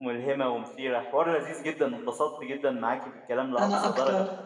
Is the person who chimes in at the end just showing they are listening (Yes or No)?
Yes